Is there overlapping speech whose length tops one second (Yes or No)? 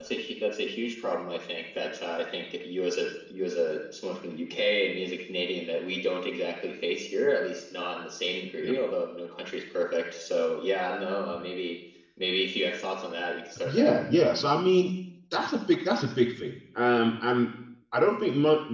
No